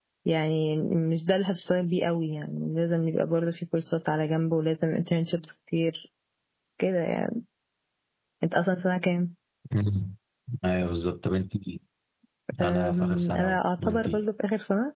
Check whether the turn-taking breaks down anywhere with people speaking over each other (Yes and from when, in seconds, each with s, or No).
Yes, from 12.6 s